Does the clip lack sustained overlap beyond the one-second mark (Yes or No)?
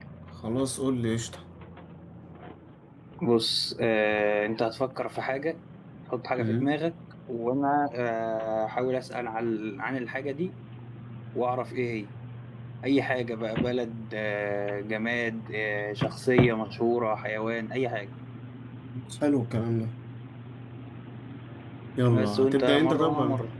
No